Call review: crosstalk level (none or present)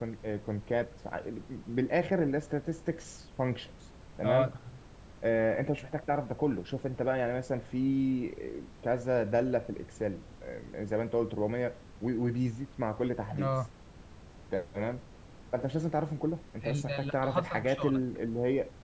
present